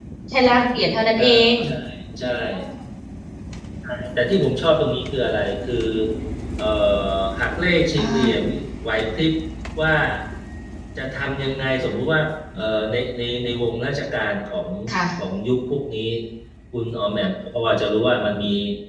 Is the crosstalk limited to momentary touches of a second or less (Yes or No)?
Yes